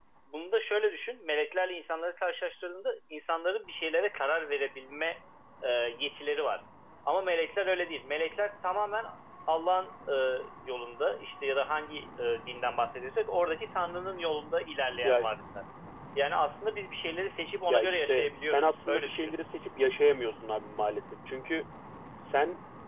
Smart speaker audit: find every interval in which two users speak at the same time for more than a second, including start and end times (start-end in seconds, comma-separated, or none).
17.7-19.3